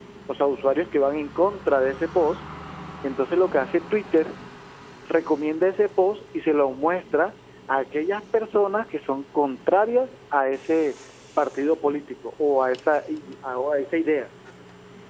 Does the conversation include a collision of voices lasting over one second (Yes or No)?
No